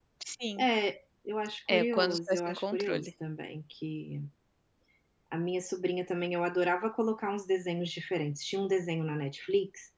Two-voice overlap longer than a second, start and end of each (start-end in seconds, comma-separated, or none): 1.7-3.1